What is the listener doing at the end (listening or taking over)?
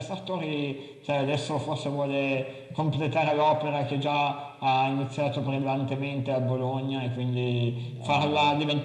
listening